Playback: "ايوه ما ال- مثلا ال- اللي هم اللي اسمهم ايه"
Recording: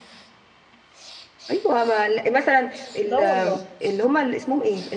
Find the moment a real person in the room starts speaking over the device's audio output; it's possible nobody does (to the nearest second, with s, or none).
3 s